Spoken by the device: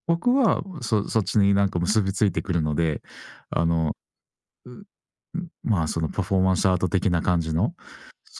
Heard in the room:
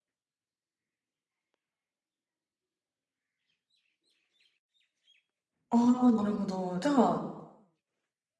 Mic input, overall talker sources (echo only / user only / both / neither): user only